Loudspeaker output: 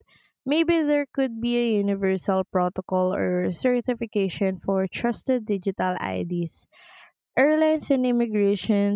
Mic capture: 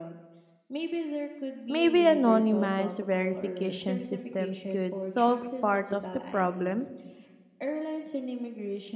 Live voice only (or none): Maybe anonymized verification systems could solve part of the problem.